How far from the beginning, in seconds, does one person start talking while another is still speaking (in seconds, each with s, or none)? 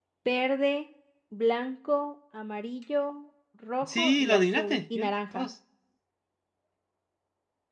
3.8 s